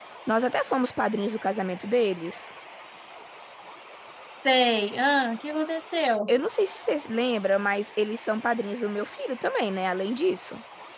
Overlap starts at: none

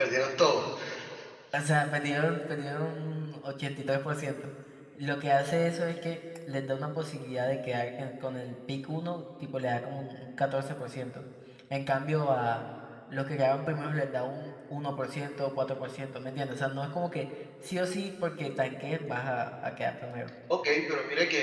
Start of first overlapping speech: none

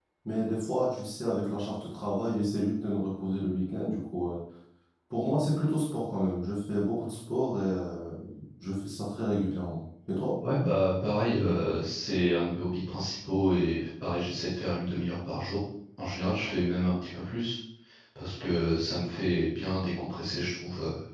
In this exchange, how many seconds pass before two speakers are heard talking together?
none

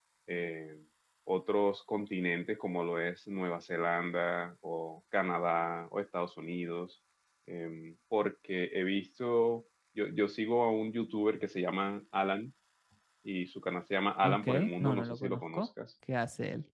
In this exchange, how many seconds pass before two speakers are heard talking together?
14 s

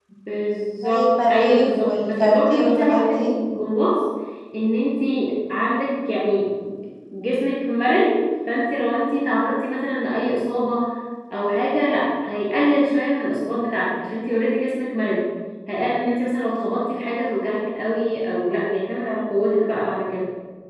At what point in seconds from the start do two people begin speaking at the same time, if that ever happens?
1 s

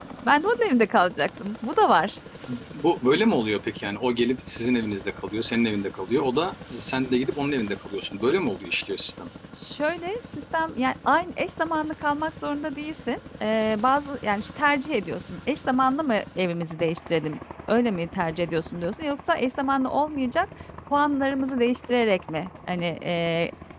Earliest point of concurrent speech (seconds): none

